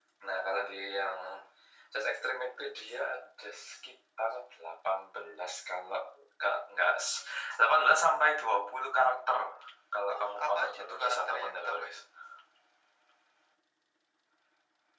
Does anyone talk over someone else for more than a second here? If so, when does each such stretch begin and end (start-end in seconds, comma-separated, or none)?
10.1-12.0